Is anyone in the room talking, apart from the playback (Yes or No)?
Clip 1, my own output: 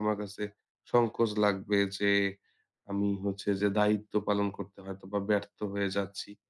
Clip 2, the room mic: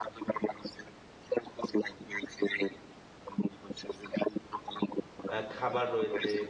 Yes